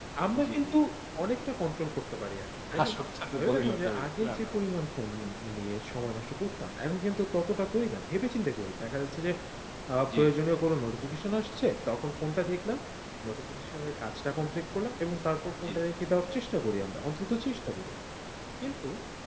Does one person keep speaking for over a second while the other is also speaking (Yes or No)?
Yes